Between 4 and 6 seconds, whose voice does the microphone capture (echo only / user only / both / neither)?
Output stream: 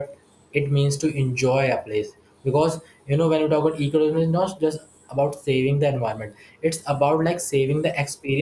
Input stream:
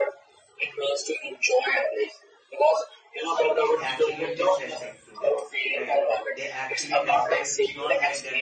both